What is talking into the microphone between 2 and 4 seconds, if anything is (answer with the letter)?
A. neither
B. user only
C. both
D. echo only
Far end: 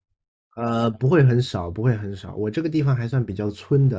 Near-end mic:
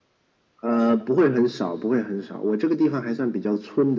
D